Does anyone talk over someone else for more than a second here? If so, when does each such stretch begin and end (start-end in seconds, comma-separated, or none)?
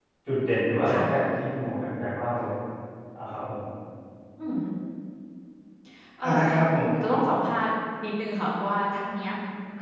none